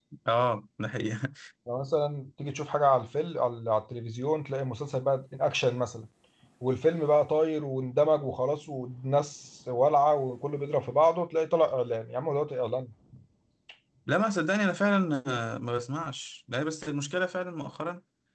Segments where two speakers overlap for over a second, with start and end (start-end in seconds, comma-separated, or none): none